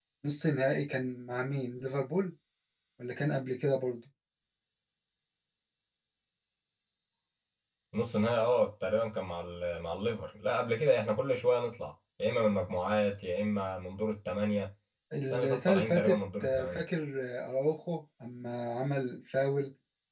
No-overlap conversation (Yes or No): No